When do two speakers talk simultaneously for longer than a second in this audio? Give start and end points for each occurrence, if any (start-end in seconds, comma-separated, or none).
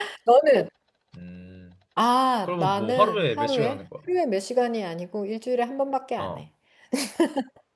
2.5-3.8